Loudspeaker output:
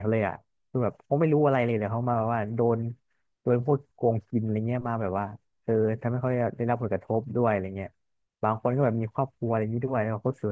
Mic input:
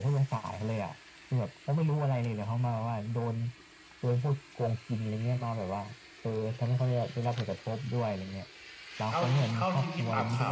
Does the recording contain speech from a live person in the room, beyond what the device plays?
Yes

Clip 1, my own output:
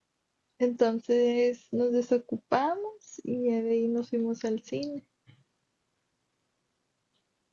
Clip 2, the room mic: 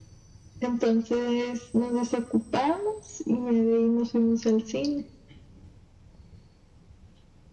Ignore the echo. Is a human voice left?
No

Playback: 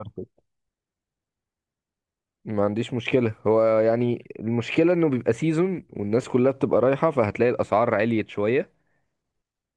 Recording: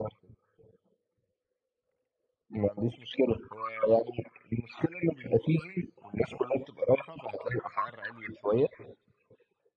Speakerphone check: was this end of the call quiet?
Yes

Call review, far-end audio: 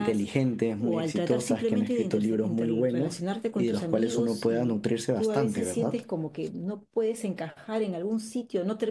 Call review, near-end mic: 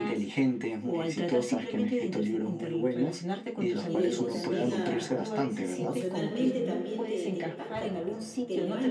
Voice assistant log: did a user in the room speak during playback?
Yes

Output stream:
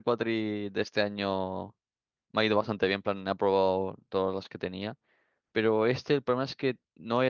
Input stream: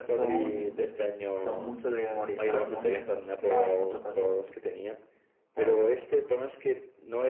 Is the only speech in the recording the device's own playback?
No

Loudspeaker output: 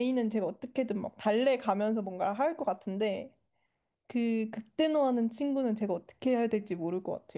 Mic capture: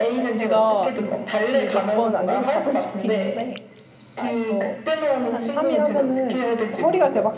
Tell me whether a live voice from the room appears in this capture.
Yes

